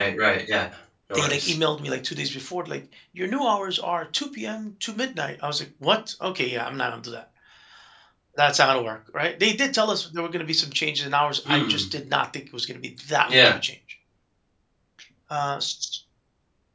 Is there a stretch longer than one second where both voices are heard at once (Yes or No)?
No